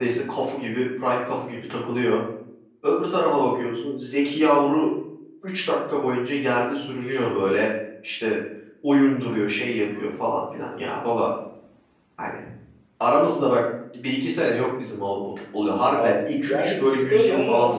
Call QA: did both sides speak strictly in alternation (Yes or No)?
No